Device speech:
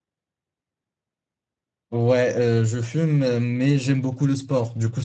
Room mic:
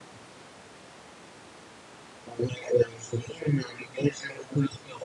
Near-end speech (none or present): none